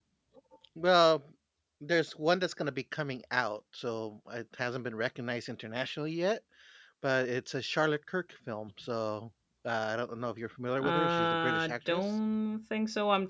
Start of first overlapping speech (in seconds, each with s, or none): 10.8 s